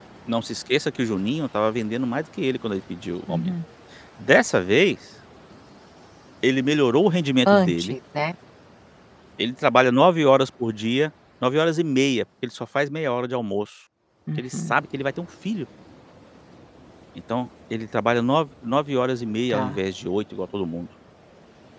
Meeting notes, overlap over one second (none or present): none